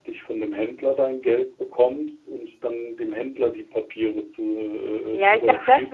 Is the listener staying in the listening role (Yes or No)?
No